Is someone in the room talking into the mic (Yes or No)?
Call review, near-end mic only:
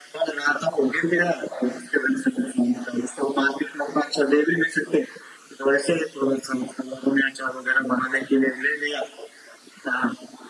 No